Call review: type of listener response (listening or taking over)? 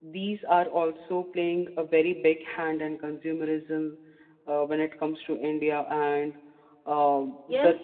taking over